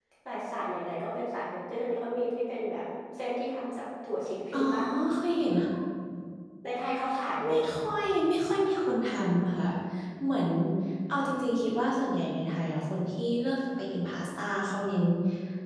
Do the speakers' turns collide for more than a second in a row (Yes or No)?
No